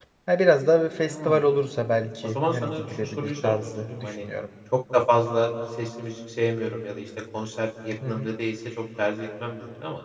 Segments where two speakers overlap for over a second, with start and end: 2.2-4.2

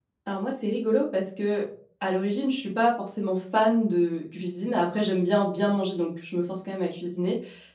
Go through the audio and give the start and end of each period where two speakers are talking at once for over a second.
none

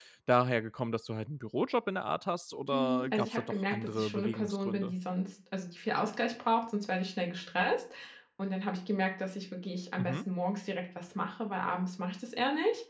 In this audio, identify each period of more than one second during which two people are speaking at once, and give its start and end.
2.7-4.9

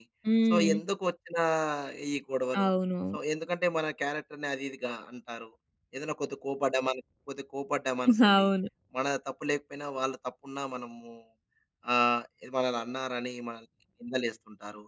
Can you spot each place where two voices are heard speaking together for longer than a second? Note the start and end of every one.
none

